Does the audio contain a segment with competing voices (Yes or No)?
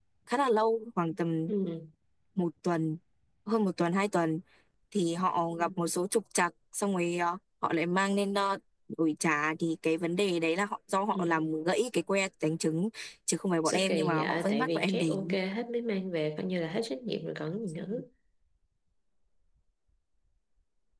Yes